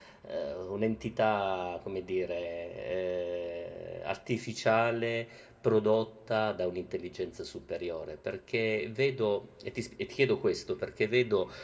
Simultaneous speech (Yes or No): No